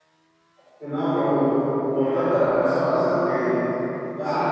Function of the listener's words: taking over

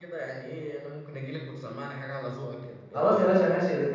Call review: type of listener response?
taking over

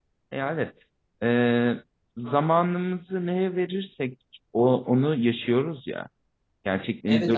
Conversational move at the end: taking over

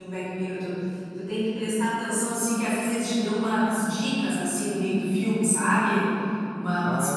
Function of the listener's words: listening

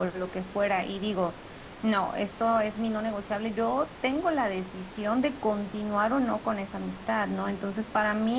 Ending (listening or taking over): listening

